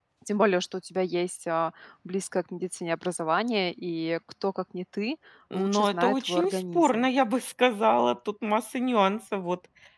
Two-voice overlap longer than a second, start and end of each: 5.5-7.1

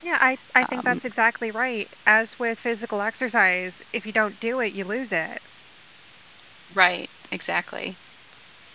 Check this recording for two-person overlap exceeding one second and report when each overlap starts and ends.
none

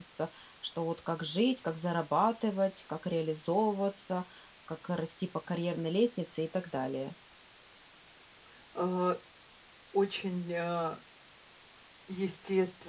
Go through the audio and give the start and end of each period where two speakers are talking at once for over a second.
none

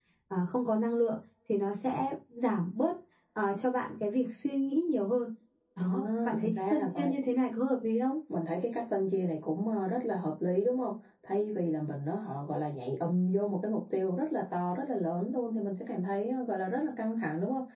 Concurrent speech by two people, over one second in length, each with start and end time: 5.8-7.1

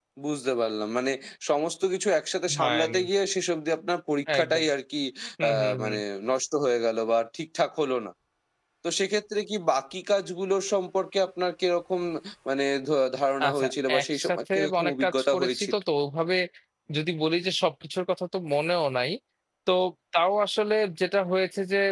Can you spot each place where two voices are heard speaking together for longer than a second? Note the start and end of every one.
13.5-15.7

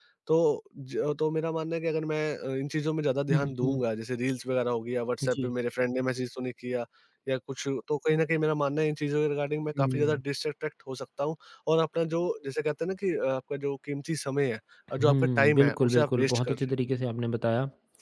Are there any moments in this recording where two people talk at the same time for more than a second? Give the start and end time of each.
15.0-16.6

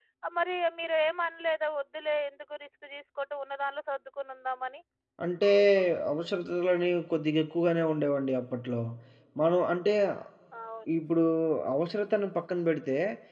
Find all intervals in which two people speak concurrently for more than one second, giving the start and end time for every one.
none

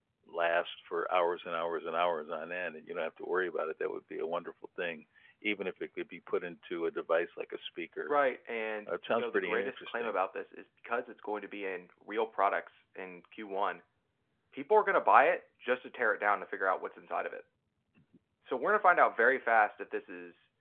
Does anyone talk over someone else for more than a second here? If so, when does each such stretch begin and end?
8.9-10.2

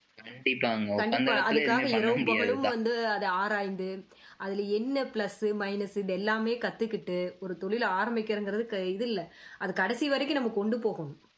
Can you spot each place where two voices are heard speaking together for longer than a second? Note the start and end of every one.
1.0-2.8

